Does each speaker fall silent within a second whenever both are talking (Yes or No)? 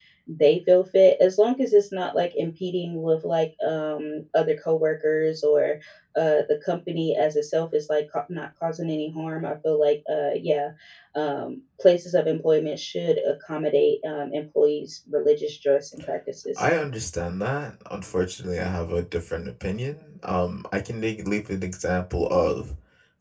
Yes